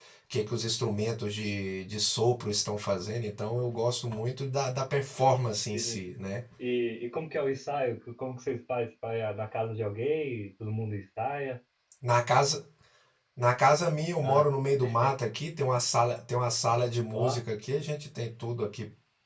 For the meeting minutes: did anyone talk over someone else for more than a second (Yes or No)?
No